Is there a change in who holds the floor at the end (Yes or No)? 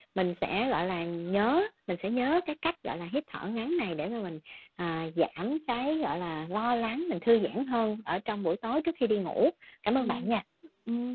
Yes